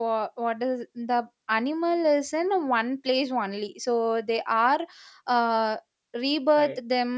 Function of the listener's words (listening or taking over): listening